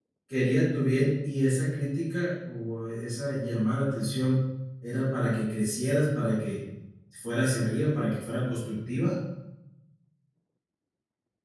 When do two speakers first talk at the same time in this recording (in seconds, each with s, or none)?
none